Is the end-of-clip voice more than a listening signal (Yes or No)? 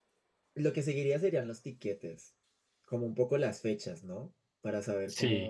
No